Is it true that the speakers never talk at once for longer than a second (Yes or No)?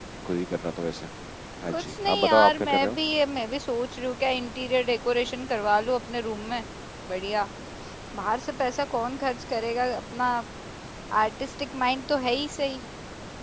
No